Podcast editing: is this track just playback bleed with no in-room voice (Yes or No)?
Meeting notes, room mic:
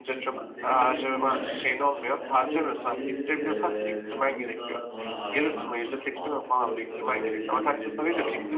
No